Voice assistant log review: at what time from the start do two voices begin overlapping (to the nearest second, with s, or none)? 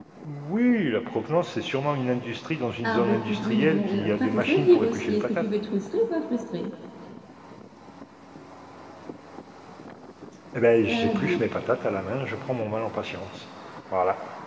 3 s